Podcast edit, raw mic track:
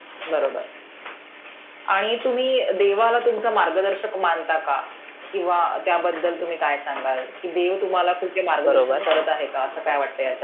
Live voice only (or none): बरोबर.